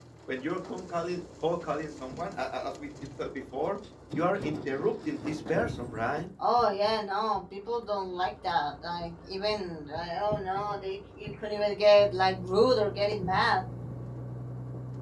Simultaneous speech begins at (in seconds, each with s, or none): none